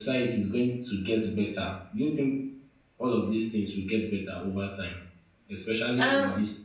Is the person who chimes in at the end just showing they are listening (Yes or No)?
No